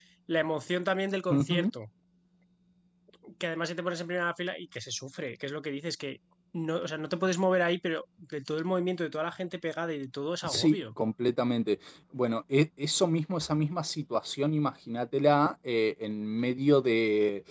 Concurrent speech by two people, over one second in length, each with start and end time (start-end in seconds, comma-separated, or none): none